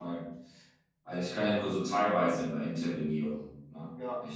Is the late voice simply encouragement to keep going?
Yes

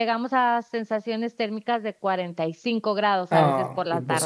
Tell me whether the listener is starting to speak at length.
Yes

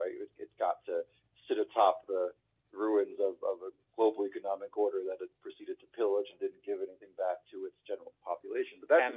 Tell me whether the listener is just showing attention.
No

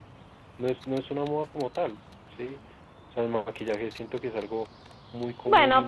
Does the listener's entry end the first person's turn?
Yes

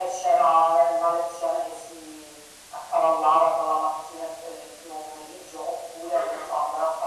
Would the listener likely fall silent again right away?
Yes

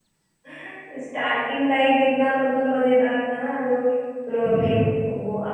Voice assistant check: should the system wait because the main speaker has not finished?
Yes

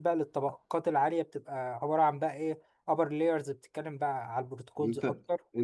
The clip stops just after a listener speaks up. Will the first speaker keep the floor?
No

